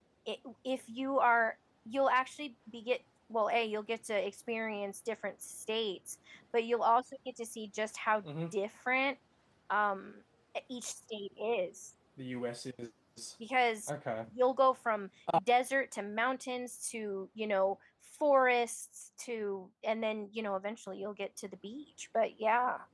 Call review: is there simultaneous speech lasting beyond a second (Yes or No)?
No